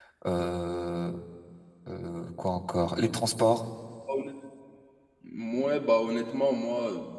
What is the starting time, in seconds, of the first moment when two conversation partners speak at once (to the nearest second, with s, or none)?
none